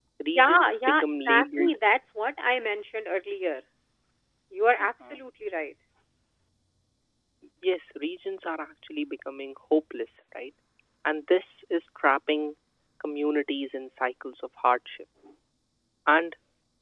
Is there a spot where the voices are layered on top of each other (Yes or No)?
Yes